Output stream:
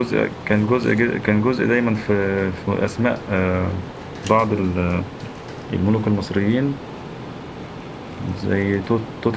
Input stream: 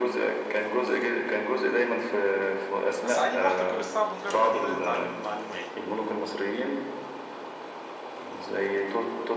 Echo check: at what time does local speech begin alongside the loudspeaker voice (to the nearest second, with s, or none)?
3 s